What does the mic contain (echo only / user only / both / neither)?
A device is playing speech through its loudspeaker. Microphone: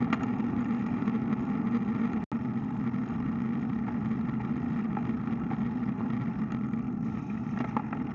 neither